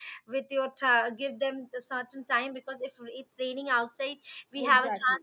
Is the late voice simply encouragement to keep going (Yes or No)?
Yes